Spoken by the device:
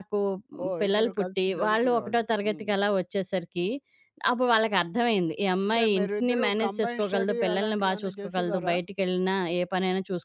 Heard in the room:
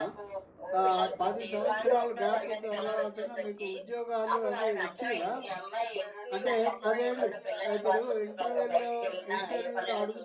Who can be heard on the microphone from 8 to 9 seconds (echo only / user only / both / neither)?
both